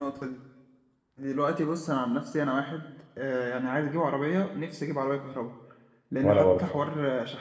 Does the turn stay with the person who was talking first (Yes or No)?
Yes